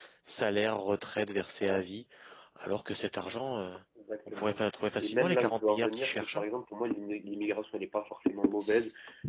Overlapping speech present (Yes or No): Yes